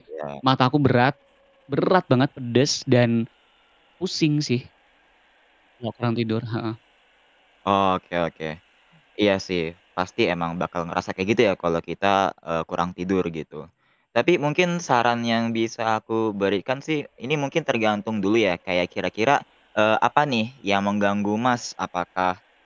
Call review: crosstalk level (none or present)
none